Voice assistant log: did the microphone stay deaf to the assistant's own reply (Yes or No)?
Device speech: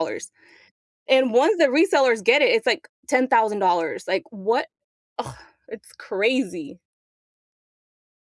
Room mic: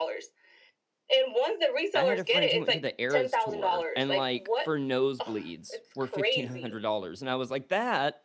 No